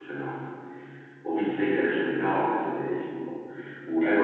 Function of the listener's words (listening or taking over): listening